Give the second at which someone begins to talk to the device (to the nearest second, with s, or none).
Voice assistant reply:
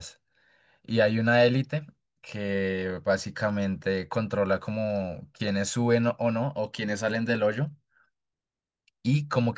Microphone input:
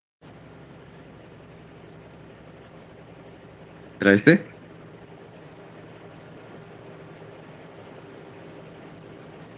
4 s